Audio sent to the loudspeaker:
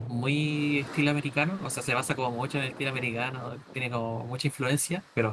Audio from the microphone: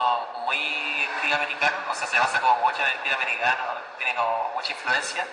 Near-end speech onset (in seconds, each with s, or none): none